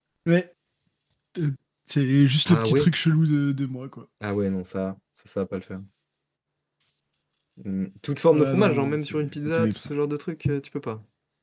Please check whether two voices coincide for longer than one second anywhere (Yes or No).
Yes